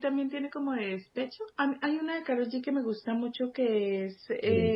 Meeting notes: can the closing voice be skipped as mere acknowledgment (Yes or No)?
Yes